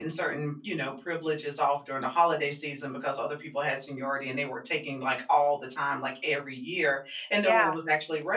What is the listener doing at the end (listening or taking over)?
listening